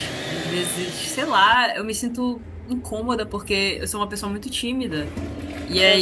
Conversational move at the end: listening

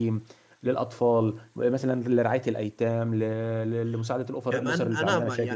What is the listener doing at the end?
taking over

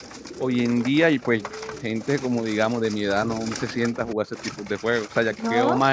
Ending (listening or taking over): listening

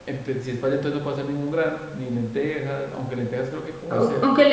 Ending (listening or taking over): taking over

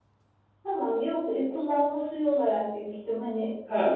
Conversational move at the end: taking over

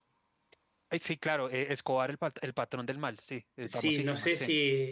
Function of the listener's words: taking over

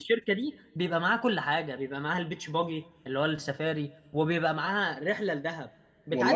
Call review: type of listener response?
listening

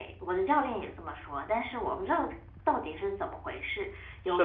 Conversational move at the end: taking over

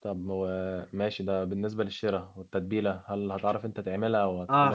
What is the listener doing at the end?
taking over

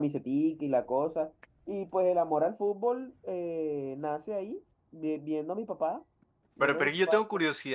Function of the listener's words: taking over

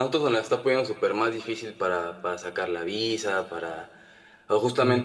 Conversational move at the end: listening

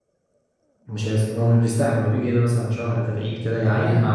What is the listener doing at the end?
listening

